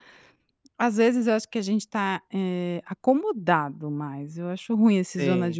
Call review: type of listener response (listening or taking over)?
listening